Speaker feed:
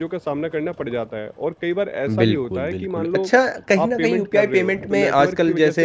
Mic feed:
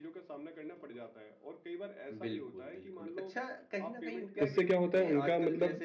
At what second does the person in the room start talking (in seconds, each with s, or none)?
4.4 s